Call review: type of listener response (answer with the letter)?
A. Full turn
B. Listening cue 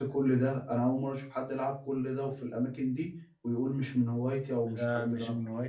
A